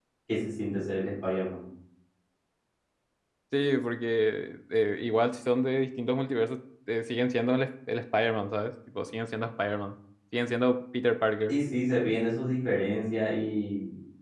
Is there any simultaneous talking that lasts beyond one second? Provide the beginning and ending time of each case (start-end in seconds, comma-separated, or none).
none